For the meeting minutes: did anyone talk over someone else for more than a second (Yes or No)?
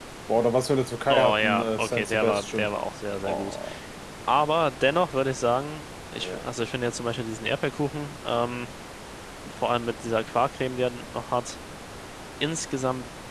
Yes